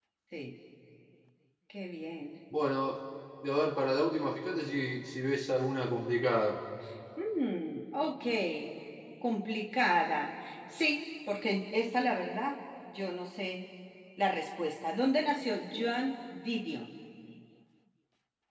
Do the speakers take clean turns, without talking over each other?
Yes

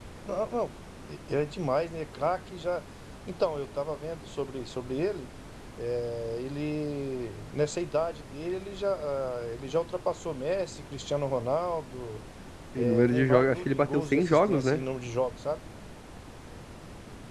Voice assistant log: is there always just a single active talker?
No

